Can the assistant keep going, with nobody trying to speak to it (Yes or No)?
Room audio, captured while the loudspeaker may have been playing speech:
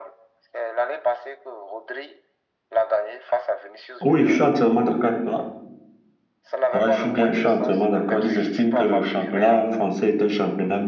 No